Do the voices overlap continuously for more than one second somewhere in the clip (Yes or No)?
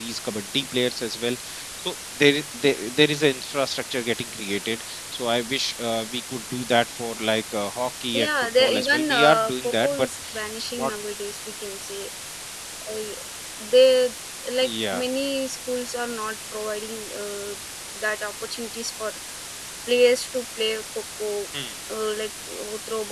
Yes